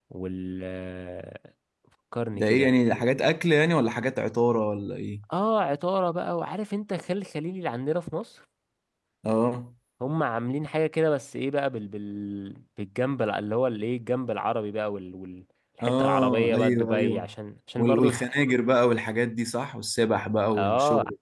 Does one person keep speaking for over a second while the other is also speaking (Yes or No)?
Yes